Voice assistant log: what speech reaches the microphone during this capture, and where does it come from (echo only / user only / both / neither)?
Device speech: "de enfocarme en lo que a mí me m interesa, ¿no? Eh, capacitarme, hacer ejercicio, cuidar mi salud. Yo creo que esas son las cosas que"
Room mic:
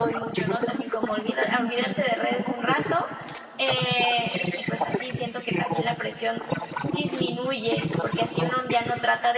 both